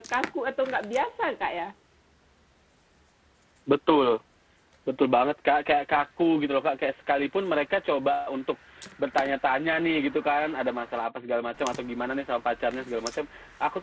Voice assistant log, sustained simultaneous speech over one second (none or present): none